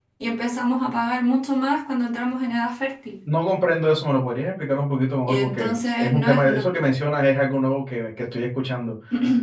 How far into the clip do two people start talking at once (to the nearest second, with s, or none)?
5 s